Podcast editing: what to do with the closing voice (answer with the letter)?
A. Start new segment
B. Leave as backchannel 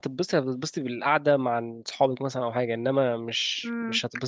A